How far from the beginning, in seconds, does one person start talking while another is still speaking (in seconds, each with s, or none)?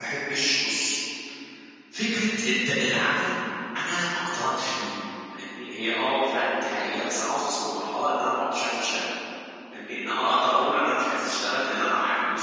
none